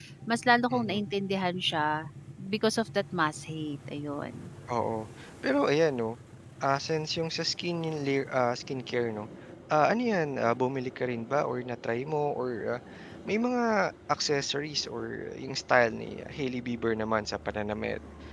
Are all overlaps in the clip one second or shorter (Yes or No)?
Yes